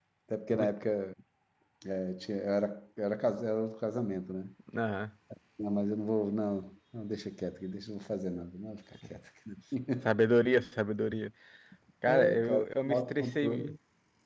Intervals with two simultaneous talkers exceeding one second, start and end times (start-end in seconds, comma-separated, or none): 12.1-13.7